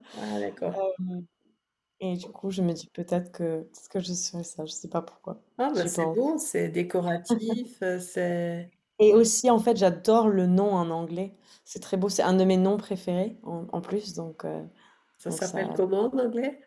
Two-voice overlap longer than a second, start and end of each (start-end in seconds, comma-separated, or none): none